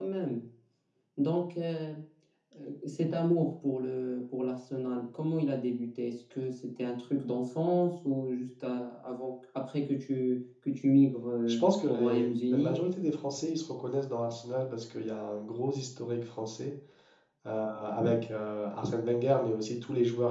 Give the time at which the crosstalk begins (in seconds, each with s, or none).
11.5 s